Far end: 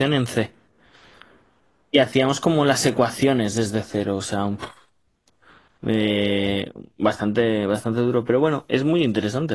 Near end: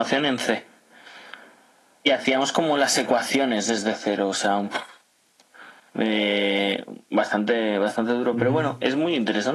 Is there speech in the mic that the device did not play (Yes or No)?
Yes